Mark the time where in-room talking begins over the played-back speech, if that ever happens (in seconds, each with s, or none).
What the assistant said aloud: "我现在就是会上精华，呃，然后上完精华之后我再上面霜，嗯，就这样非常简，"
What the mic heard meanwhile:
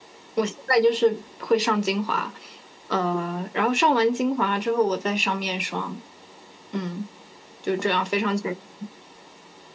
none